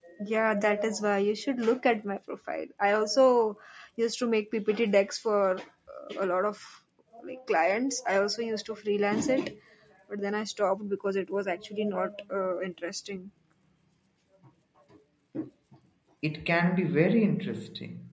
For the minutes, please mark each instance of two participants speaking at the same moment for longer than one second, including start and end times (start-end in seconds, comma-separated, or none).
none